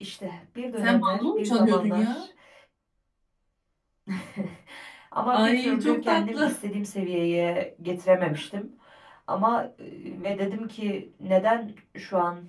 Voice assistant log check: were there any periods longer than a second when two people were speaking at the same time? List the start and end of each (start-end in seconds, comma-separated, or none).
0.8-2.2, 5.3-6.6